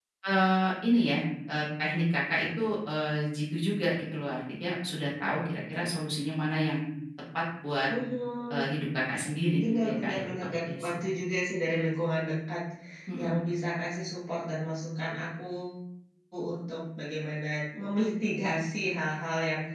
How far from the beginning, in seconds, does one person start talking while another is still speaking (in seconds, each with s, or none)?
9.6 s